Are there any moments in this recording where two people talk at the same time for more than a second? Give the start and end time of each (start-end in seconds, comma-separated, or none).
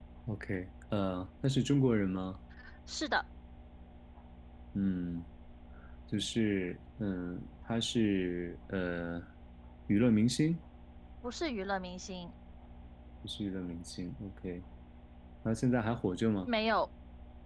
none